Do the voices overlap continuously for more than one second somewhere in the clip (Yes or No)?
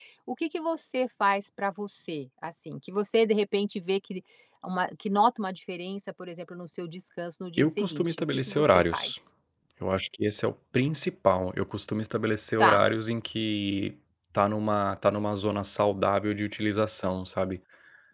Yes